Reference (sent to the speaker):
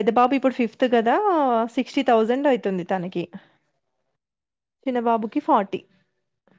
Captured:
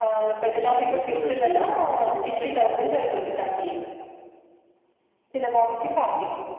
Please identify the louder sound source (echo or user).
echo